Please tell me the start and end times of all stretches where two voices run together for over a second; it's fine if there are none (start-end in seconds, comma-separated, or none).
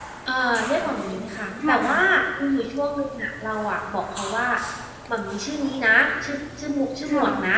0.7-2.0